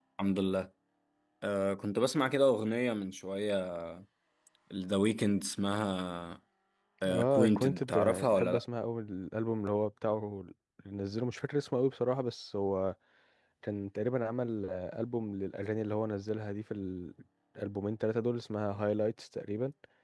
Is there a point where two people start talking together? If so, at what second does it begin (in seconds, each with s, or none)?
7.1 s